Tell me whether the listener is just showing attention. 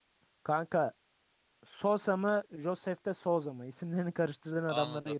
No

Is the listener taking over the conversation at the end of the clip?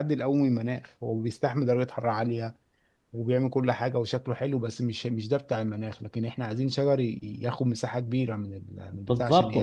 Yes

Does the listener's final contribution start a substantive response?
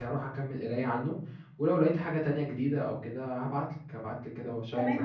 Yes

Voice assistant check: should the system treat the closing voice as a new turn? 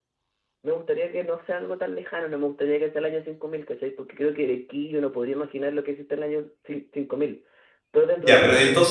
Yes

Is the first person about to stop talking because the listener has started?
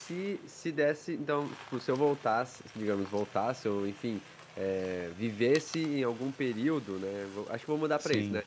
No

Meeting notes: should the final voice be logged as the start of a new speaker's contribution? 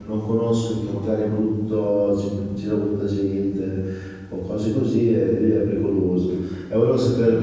Yes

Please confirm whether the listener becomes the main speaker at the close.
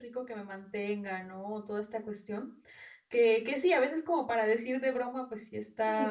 No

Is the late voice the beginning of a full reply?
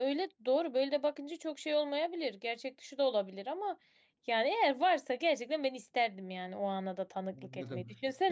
Yes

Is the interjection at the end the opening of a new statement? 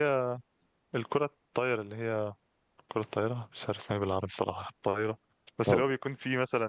No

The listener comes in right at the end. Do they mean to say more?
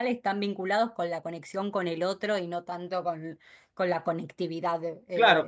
Yes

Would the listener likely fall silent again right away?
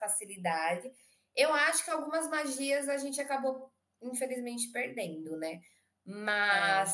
Yes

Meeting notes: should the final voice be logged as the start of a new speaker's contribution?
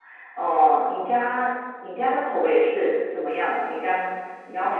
Yes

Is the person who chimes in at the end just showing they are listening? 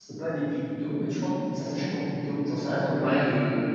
Yes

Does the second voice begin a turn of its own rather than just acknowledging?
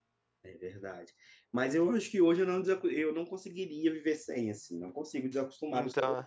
No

